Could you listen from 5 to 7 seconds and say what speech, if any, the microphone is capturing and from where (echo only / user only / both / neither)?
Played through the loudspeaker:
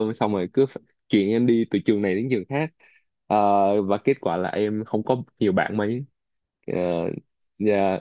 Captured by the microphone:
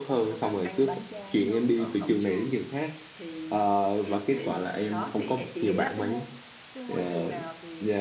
both